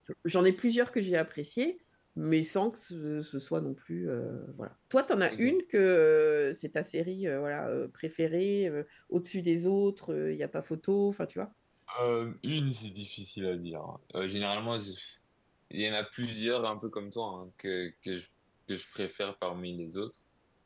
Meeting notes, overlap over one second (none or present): none